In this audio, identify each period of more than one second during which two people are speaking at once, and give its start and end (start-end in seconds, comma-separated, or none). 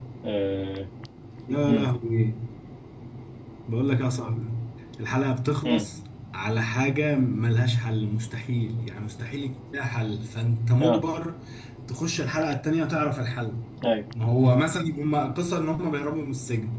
none